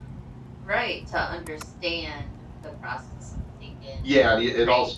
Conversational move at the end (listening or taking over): taking over